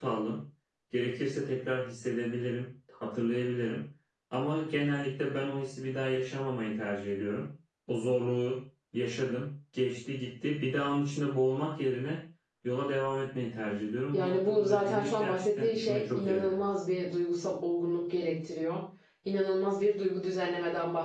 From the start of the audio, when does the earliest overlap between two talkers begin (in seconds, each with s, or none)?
14.1 s